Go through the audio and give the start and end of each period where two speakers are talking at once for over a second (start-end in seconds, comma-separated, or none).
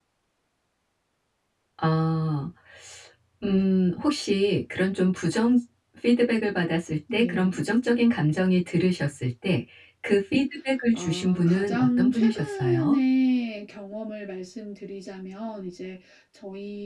10.9-13.0